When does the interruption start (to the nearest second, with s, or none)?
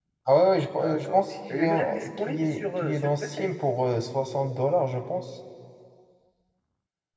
1 s